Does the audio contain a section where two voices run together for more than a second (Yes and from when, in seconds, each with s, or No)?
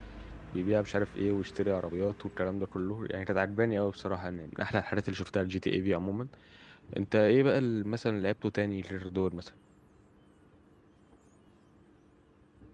No